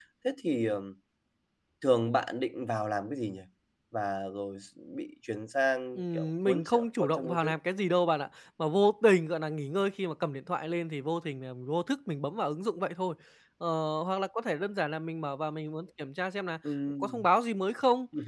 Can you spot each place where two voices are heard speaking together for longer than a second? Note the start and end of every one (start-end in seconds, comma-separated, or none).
5.9-7.5